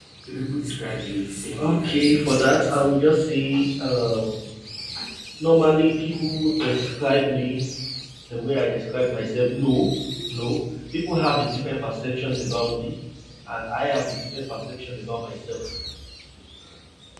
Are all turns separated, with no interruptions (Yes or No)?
No